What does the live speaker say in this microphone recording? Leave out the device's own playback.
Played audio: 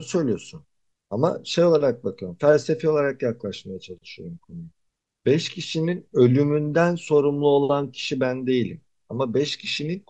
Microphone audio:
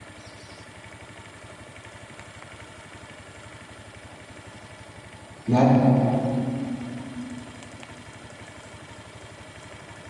Yani

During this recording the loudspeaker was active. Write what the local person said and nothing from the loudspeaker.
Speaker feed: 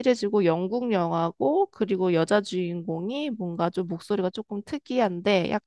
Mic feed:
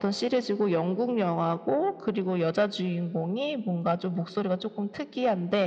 none

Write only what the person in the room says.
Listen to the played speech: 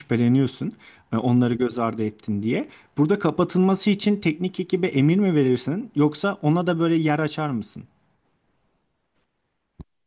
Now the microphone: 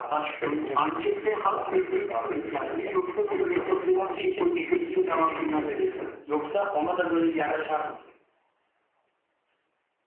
Onun- Ankette halk desteğini mi ölçersin yoksa böyle medya sessizliği politikasıyla devam eder misin?

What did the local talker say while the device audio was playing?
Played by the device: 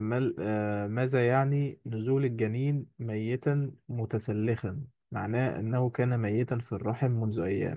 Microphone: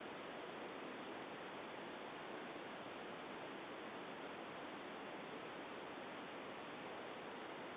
none

